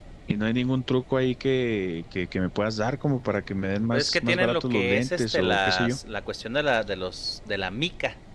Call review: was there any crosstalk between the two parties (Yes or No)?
Yes